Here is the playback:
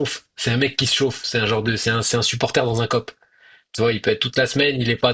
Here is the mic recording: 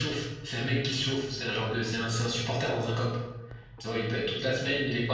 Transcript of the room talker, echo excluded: none

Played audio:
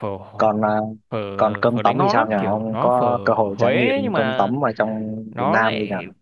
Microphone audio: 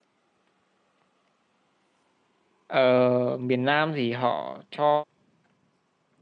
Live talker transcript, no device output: ờ, miền Nam thì họ cho

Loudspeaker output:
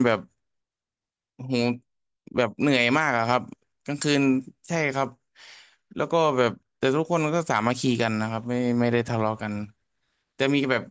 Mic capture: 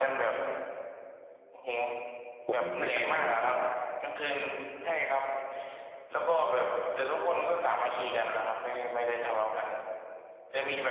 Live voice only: ผมไม่ไปไหนเลยแบบว่า

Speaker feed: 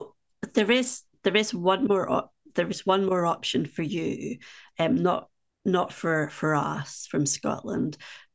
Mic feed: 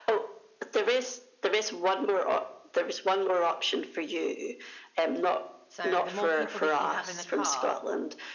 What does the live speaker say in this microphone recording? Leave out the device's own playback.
So the more people that you have in the car,

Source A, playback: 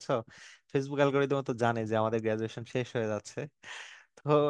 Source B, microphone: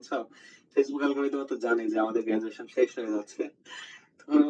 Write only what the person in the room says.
none

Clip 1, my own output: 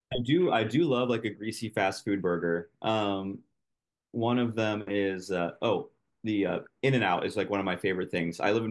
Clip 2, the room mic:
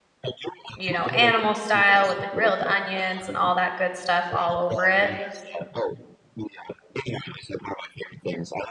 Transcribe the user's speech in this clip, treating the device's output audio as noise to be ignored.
you know, animal style with the grilled onions and all that good stuff all over it.

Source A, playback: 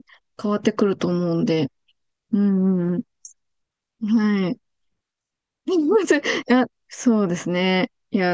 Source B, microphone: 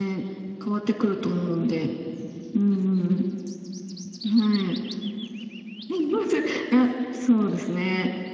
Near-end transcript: none

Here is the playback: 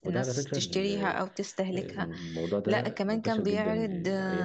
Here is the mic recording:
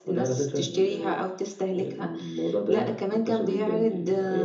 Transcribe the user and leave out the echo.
none

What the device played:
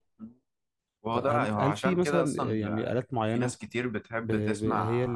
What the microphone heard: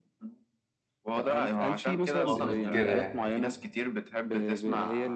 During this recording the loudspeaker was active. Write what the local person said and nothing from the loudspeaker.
قامت كده يعني

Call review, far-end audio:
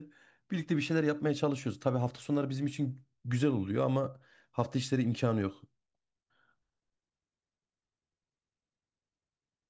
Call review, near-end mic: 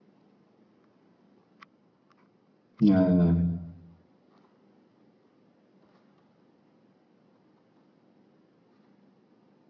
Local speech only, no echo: Ya.

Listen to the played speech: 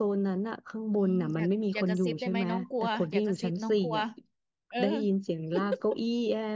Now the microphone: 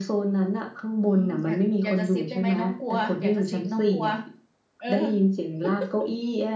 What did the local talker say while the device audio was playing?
none

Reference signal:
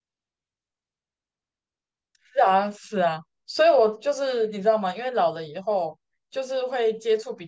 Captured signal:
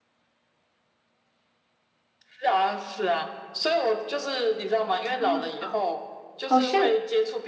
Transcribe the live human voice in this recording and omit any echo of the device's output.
超慢跑，好像

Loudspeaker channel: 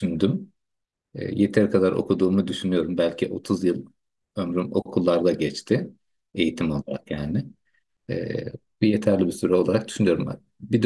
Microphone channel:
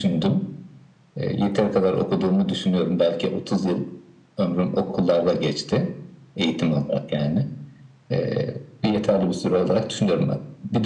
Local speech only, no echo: none

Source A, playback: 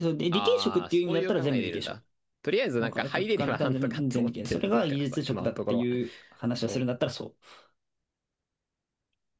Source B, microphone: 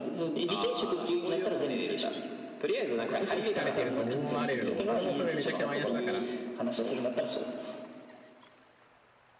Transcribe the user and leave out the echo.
嘘つかれてると思われるのも、それもそれめちゃくちゃマイナスだから、

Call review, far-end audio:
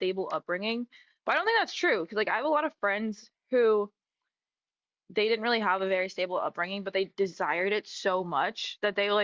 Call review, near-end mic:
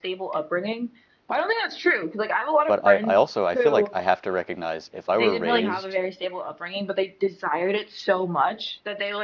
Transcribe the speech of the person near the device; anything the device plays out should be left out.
But I, I also I feel like I have to recognize if I were raised

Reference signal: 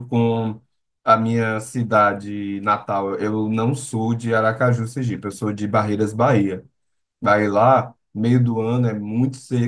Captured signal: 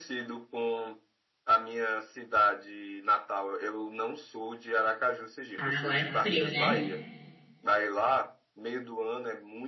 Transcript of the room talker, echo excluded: Ah, lá é frio, né?

